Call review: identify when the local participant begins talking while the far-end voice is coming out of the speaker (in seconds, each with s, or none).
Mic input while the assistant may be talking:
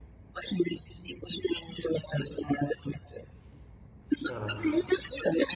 4.2 s